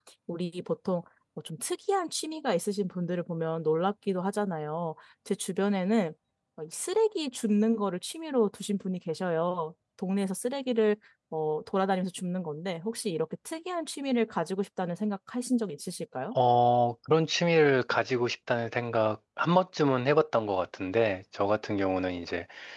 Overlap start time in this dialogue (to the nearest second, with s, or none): none